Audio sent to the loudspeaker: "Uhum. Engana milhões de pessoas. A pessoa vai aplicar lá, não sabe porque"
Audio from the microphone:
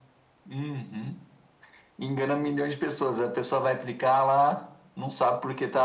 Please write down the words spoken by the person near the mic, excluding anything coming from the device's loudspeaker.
none

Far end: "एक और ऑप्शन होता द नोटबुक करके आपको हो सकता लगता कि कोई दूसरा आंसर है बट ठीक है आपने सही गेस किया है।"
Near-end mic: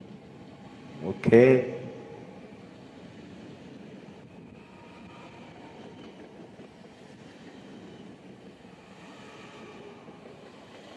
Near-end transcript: ओके

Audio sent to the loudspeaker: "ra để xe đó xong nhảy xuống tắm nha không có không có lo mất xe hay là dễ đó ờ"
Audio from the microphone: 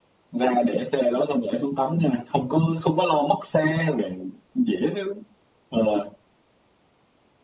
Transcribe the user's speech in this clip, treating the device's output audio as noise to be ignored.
none

